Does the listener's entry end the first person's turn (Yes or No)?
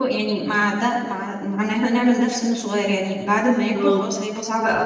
No